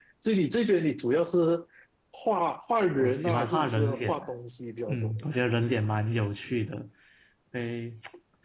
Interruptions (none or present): present